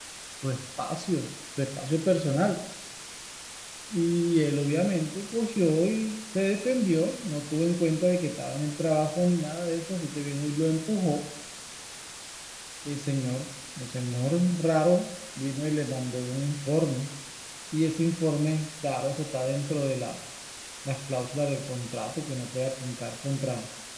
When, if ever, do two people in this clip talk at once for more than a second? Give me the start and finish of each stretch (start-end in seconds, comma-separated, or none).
none